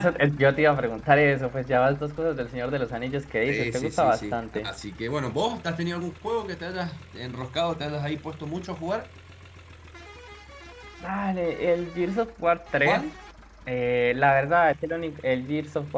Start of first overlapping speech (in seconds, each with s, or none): 3.5 s